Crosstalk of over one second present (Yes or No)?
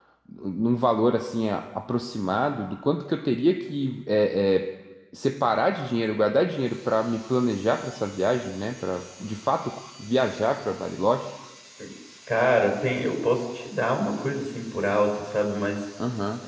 No